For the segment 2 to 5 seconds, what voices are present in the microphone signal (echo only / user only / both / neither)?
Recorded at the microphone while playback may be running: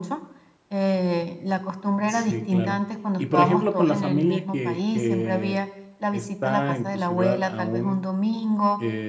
both